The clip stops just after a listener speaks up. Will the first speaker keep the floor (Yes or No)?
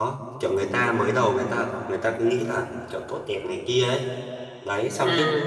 Yes